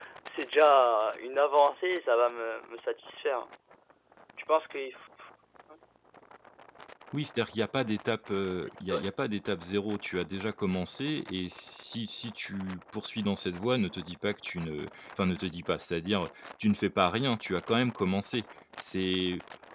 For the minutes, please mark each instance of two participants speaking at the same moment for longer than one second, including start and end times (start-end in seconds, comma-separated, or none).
none